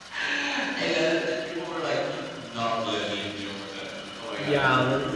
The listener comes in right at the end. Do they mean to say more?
Yes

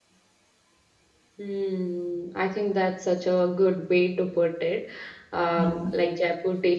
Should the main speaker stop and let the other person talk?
No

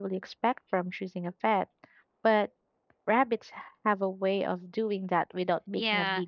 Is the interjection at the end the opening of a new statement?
Yes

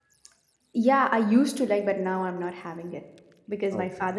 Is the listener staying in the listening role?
Yes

